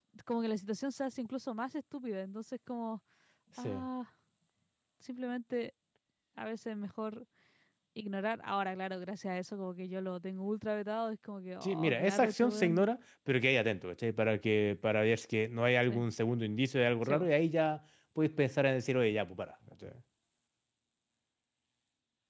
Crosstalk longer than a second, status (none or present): present